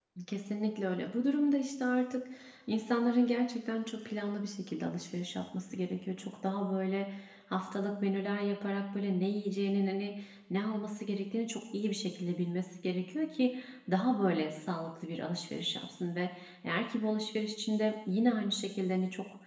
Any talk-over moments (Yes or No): No